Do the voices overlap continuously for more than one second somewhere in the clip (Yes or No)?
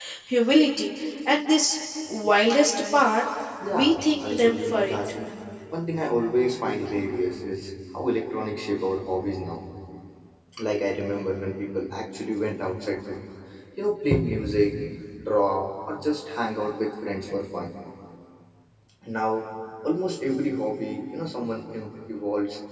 Yes